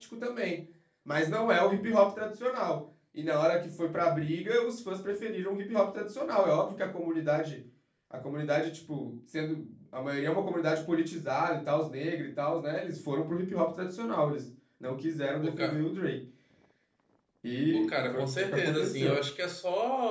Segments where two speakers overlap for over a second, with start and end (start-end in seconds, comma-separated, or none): 17.7-19.2